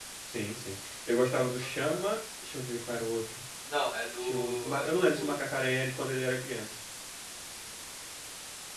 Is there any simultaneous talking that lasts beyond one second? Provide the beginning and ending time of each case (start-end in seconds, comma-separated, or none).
4.2-5.4